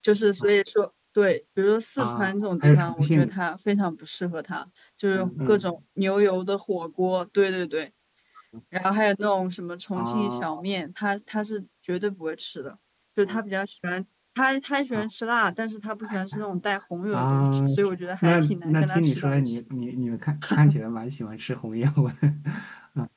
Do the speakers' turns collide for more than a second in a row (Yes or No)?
Yes